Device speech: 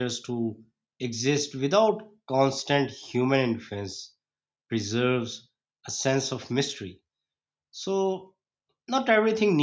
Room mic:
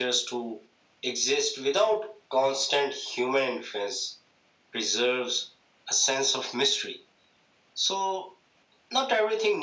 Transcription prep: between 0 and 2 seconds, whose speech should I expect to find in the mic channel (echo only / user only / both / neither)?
echo only